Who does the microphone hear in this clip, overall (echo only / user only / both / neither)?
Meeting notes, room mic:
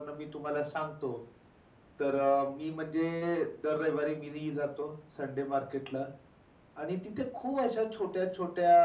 echo only